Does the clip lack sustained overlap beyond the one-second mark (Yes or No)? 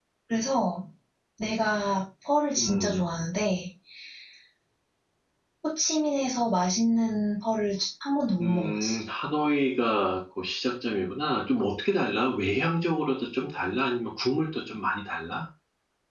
Yes